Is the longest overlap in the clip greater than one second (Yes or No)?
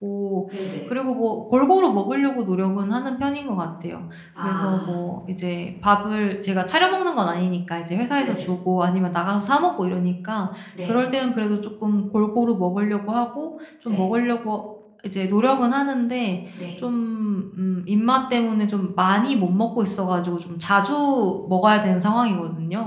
No